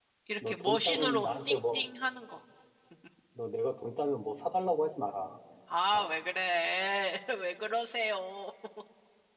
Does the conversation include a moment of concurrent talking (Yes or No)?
Yes